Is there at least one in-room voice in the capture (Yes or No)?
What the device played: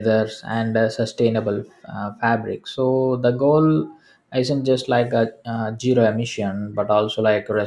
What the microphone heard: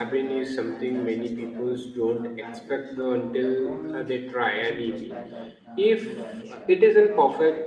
Yes